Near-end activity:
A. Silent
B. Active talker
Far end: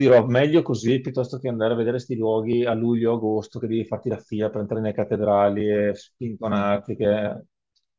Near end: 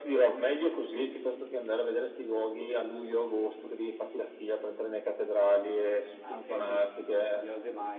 B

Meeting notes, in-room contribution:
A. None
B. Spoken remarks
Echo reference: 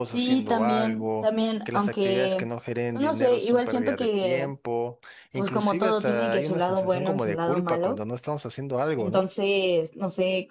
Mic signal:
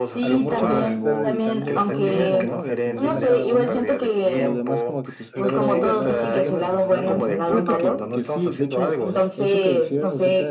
B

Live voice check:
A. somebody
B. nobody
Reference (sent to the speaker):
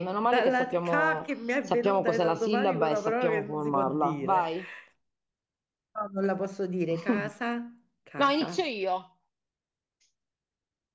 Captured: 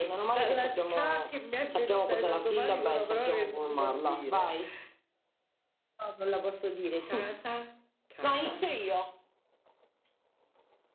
B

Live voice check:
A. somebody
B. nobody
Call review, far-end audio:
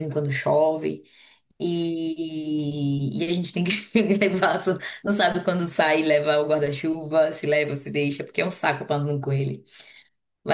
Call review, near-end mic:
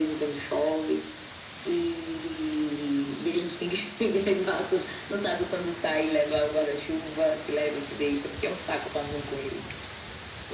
B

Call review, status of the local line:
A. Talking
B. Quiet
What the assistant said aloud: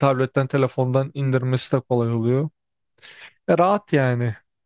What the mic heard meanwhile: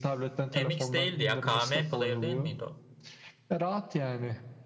A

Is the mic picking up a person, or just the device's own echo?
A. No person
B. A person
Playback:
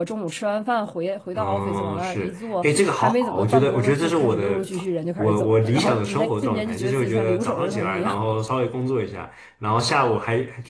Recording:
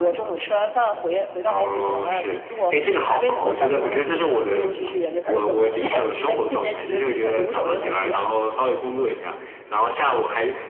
A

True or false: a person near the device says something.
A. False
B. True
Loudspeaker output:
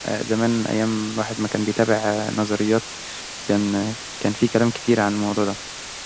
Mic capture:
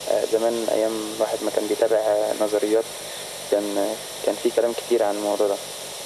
A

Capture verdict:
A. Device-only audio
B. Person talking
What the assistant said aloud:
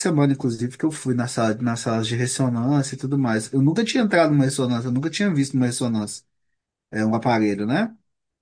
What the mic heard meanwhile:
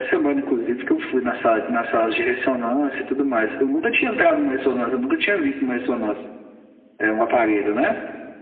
A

